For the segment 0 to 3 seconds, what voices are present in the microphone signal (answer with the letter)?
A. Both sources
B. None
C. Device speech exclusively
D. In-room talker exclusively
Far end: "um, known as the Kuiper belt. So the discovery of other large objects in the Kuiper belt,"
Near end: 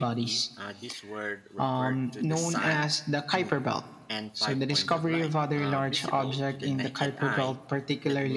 A